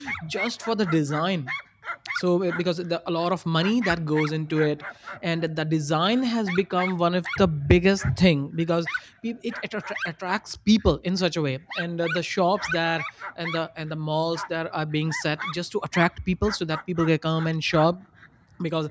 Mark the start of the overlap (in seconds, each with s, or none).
none